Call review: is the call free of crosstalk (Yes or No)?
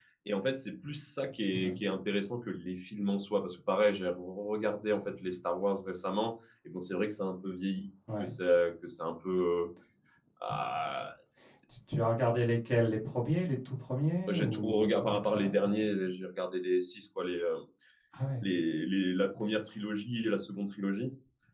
No